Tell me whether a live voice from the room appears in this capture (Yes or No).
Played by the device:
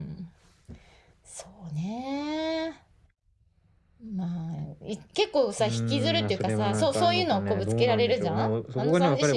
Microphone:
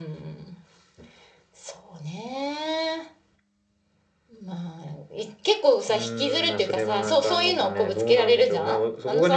No